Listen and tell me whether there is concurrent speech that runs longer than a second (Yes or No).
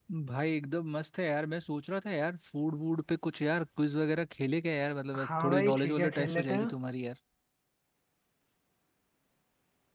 Yes